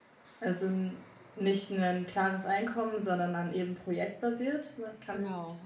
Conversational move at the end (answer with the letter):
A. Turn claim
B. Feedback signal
A